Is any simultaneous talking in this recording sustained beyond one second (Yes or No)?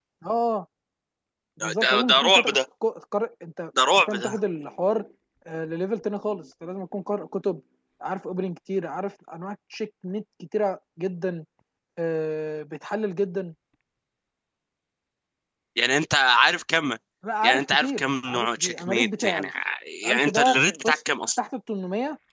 Yes